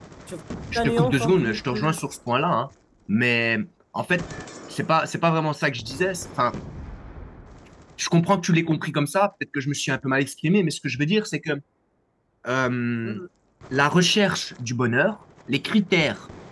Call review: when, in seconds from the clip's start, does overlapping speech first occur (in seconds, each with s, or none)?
0.7 s